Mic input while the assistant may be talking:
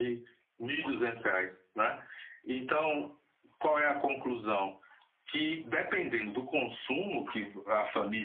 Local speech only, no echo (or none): none